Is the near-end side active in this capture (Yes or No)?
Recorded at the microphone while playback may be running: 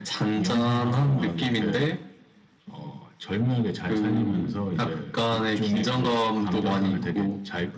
No